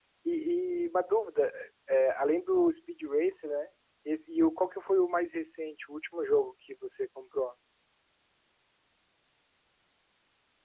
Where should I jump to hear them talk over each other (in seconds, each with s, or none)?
none